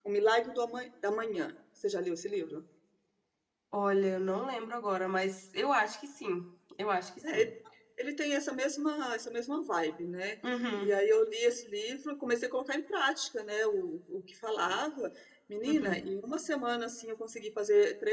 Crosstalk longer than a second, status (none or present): none